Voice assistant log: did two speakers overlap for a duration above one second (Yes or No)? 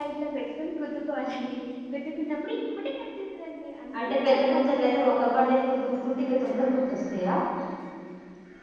Yes